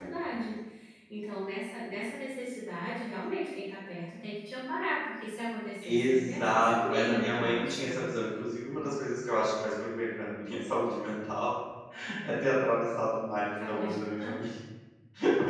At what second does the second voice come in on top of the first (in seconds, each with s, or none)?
5.8 s